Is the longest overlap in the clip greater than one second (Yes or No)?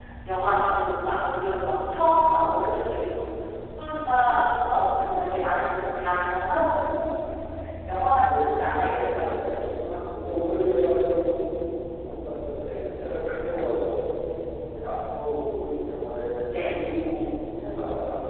Yes